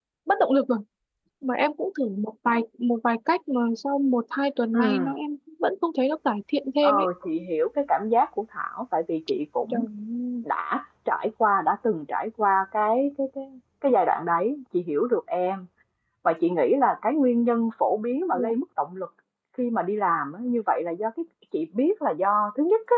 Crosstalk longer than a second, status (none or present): none